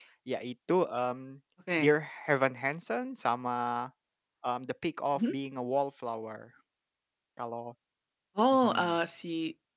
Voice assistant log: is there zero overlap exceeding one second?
Yes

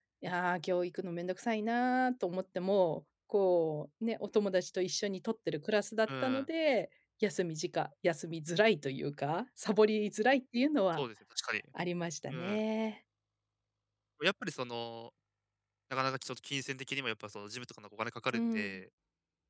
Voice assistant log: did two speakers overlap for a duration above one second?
No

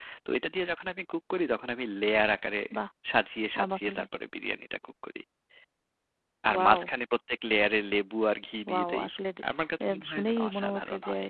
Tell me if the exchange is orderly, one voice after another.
No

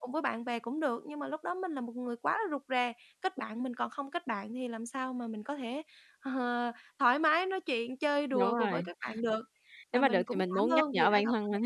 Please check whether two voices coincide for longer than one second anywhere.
Yes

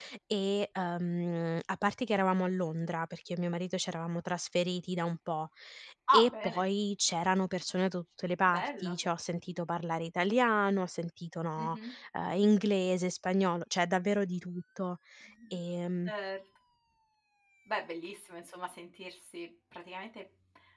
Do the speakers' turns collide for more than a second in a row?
No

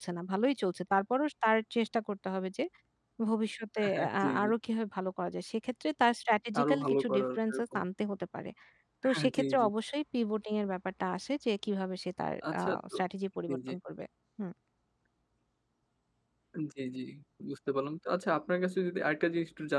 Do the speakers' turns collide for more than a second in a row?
Yes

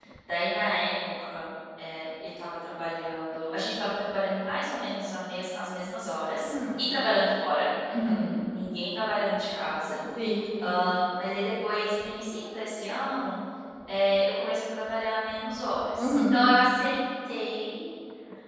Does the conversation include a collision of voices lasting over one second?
No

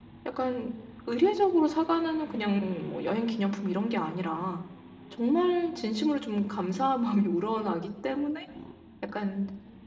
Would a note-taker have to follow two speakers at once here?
No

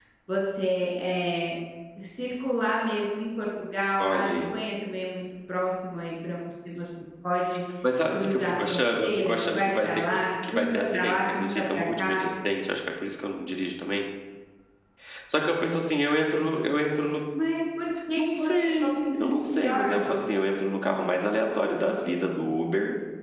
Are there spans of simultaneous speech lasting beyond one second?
Yes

